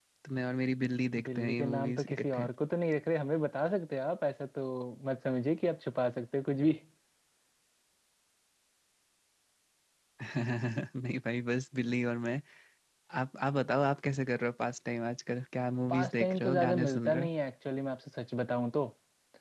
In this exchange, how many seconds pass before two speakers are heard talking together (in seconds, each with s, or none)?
1.2 s